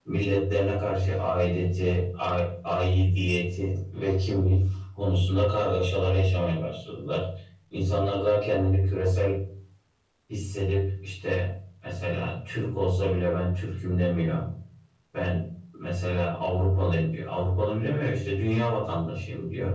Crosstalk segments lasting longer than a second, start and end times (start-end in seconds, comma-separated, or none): none